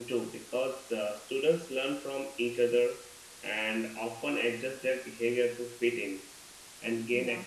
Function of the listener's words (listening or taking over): listening